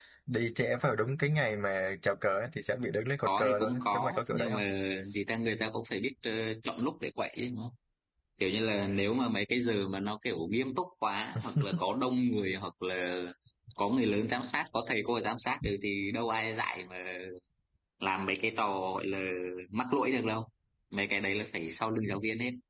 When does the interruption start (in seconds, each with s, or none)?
3.2 s